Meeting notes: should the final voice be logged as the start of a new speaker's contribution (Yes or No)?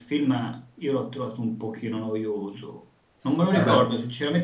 No